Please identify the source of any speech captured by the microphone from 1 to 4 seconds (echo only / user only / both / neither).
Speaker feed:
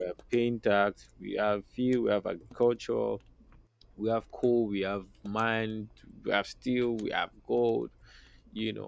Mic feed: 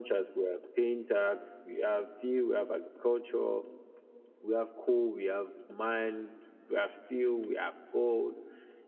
echo only